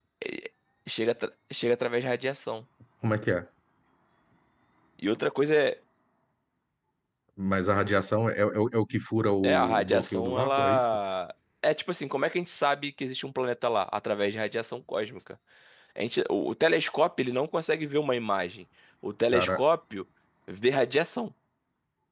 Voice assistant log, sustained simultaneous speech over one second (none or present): present